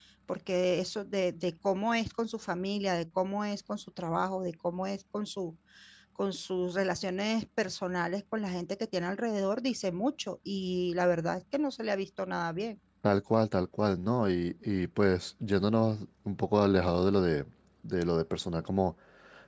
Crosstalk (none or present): none